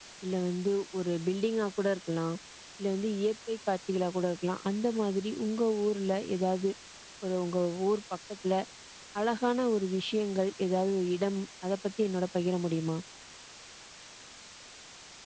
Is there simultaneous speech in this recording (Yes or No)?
No